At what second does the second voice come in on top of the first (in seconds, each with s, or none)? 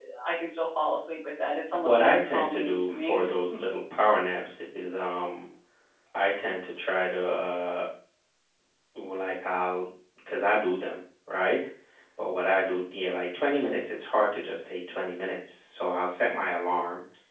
1.8 s